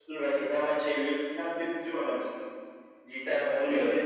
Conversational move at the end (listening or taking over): listening